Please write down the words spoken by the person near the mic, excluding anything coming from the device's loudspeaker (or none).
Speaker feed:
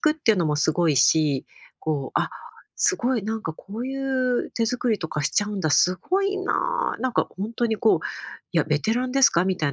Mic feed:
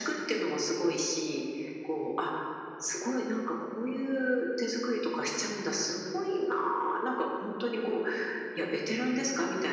none